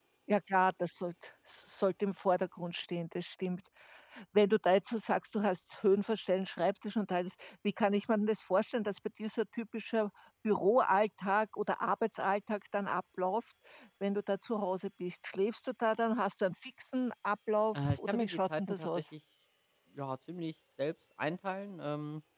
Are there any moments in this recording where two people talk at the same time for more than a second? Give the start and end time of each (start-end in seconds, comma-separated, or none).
17.8-19.0